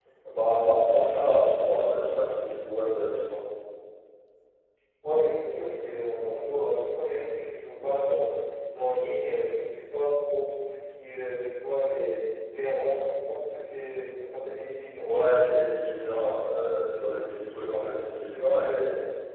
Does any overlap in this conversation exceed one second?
No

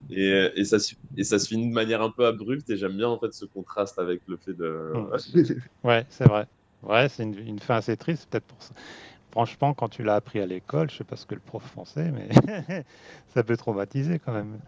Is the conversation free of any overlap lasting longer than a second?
Yes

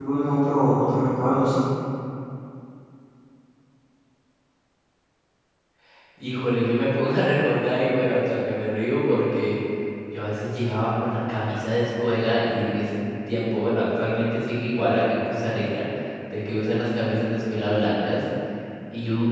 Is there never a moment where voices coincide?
Yes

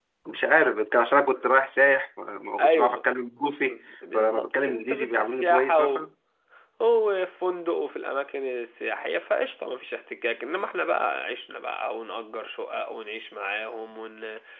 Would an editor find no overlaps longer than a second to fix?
No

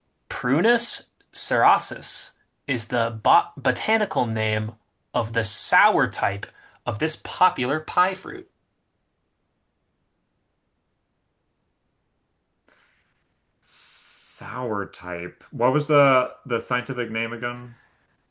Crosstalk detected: No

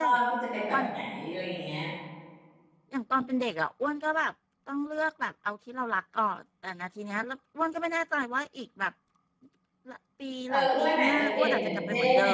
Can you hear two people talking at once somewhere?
Yes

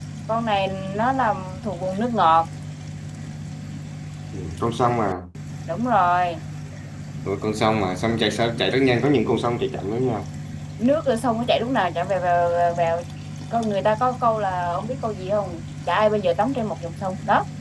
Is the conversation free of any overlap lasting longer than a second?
Yes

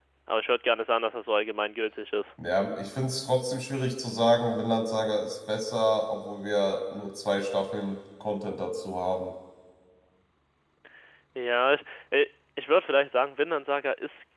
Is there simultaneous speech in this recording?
No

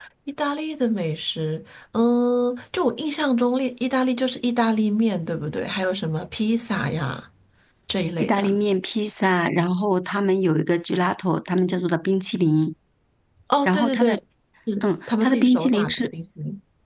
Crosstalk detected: Yes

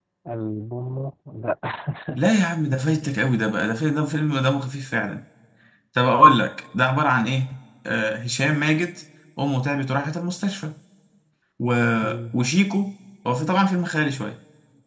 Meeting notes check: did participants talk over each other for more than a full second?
No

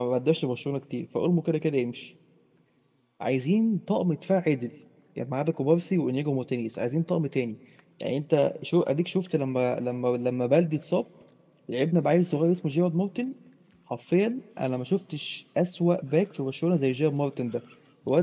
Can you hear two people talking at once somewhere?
No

